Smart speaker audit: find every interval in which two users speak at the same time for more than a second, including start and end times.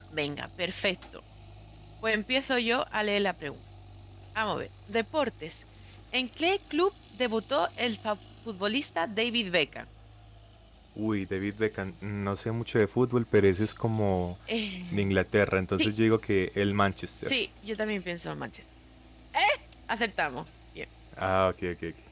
none

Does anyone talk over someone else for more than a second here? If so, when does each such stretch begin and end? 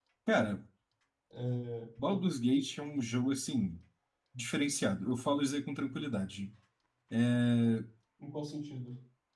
none

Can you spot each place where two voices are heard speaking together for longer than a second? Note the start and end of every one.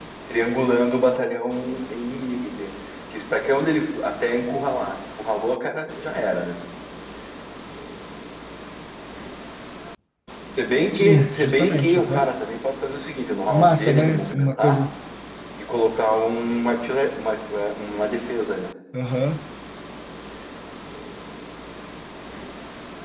10.9-12.3, 13.5-14.8

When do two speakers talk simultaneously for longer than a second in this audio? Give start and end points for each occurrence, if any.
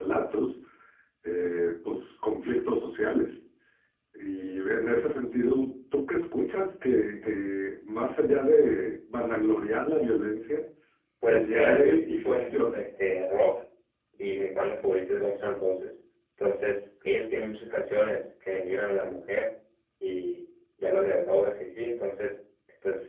11.2-12.8

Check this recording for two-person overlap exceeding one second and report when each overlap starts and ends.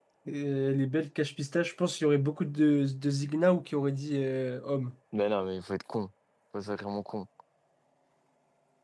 none

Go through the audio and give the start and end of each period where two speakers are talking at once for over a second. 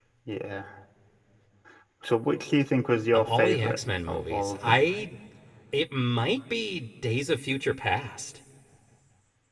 3.1-4.8

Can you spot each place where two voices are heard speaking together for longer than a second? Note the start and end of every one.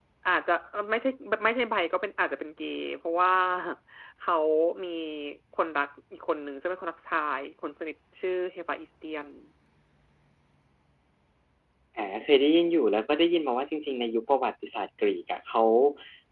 none

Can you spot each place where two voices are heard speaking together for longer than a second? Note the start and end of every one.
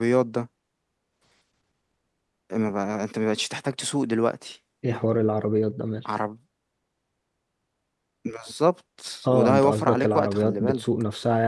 9.3-10.8

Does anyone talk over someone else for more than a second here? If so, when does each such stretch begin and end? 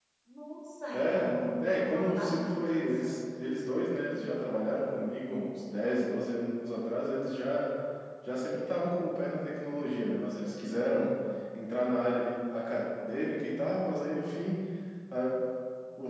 0.9-3.2

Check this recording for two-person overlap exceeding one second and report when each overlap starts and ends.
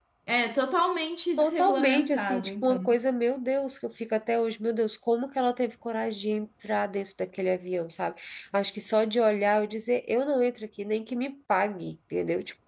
1.4-2.8

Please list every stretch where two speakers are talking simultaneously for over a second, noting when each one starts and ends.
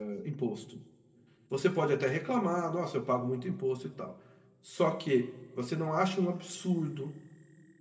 none

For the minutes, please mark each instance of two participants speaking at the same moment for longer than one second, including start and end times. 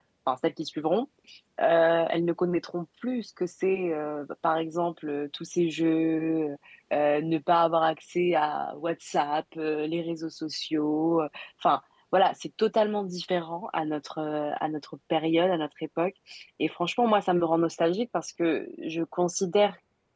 none

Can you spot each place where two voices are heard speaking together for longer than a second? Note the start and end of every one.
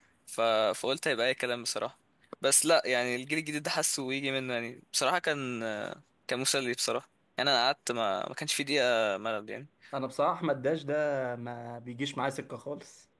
none

